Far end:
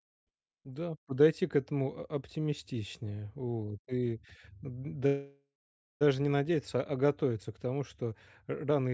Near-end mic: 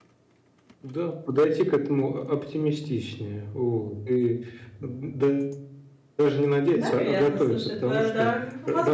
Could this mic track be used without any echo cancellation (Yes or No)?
No